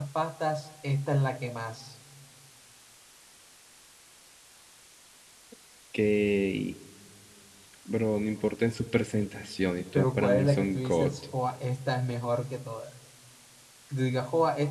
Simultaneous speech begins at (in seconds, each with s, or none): 9.9 s